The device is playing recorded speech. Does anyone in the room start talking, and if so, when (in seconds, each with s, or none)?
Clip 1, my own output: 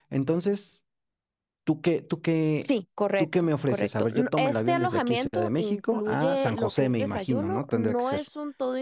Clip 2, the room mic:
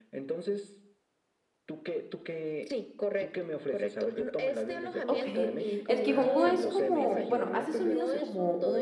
5.1 s